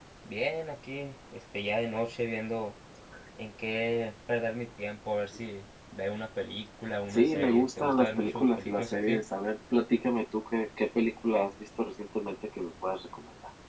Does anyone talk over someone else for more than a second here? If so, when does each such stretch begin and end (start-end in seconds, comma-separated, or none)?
7.1-9.2